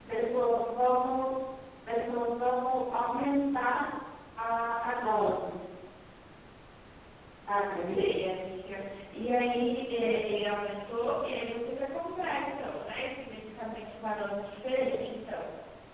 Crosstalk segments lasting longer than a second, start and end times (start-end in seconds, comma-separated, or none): none